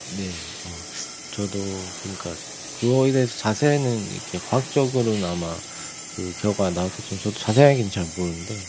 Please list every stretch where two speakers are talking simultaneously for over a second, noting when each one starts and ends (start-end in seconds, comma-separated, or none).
none